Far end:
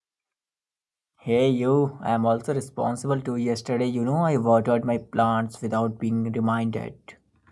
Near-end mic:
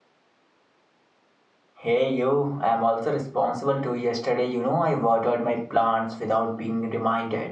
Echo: present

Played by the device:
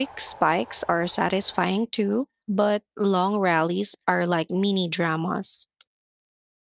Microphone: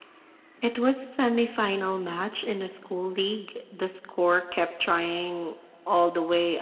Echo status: none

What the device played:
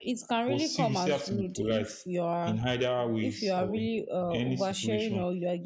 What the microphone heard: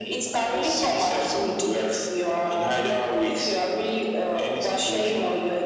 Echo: present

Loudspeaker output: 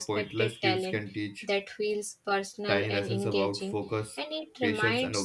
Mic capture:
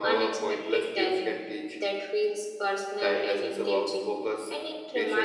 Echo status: present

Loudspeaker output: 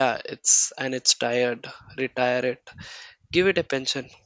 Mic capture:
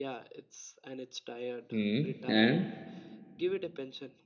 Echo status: present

